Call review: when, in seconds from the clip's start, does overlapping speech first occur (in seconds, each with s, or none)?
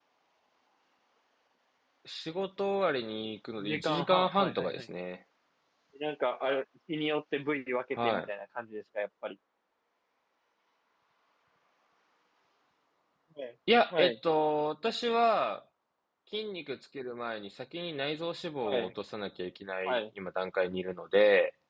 3.6 s